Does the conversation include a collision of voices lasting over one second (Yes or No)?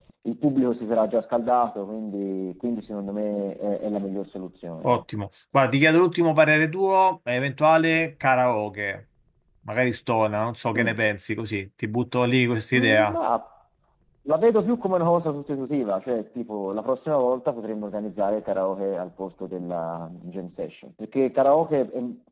No